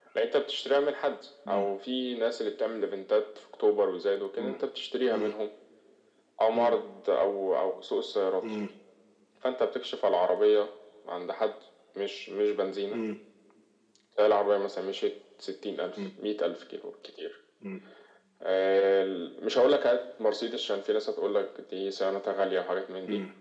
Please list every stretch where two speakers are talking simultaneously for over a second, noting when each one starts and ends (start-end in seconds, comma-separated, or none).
none